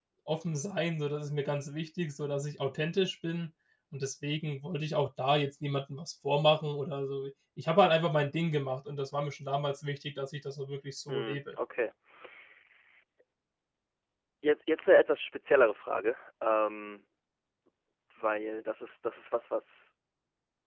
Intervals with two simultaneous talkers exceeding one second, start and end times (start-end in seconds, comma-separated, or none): none